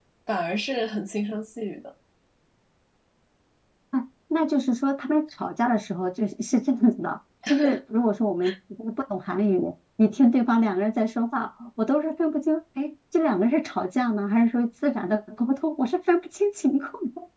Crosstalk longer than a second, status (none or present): none